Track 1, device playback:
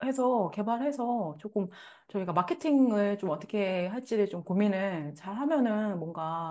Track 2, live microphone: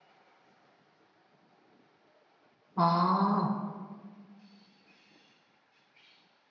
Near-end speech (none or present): present